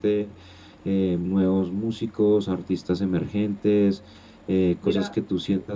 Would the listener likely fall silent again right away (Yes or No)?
Yes